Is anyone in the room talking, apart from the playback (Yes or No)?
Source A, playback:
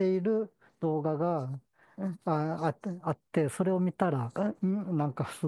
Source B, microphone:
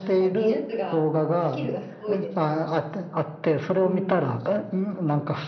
Yes